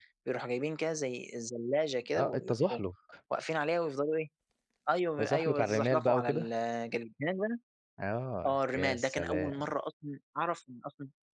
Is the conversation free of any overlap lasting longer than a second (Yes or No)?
No